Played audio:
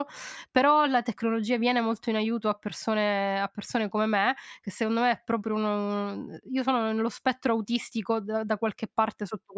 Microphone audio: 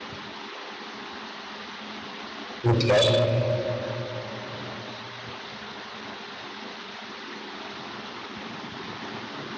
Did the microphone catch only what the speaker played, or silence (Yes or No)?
No